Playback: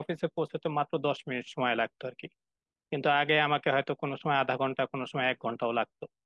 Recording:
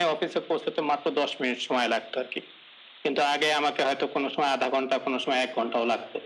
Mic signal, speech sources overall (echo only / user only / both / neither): echo only